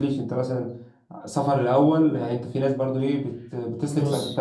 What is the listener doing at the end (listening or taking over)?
listening